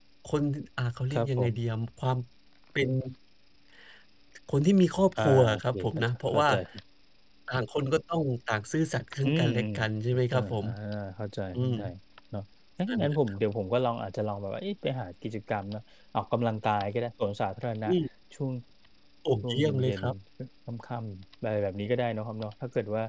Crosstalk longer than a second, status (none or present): present